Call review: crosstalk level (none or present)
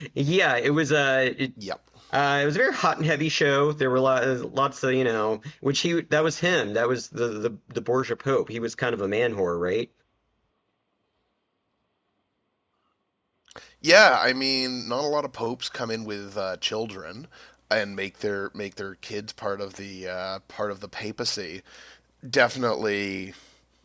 none